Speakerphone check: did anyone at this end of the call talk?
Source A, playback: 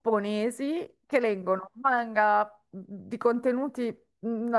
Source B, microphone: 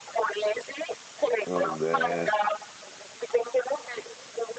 Yes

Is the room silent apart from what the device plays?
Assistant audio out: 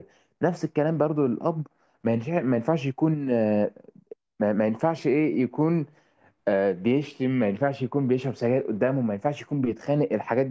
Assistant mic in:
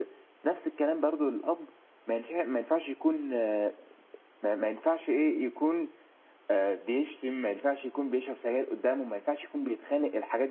Yes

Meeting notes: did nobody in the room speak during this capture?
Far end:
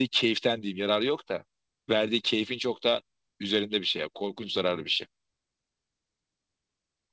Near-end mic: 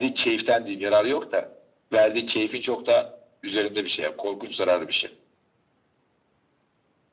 Yes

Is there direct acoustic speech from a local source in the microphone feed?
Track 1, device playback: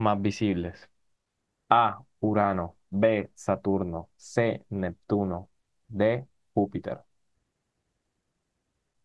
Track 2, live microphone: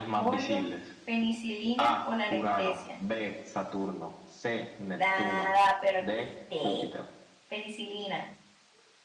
Yes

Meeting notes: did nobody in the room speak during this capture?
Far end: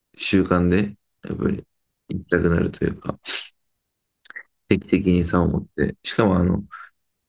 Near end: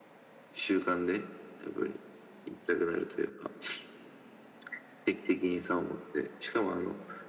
Yes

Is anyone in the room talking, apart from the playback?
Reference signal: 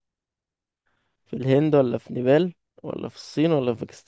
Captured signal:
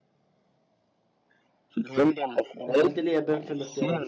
Yes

